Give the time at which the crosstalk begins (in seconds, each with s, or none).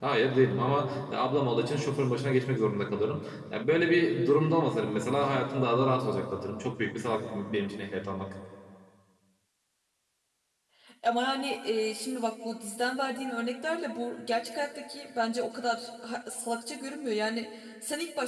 none